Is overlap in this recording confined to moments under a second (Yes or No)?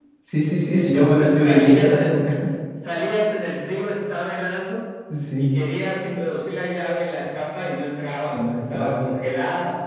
No